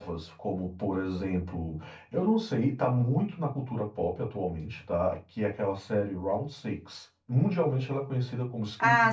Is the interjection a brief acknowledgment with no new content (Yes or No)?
No